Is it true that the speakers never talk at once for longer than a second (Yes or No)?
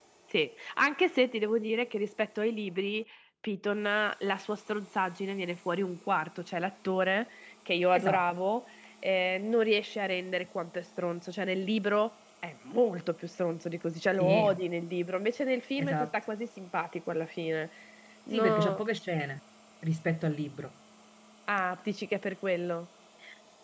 Yes